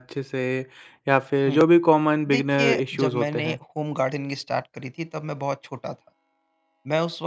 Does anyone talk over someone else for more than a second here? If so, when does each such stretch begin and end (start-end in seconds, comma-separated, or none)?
2.3-3.6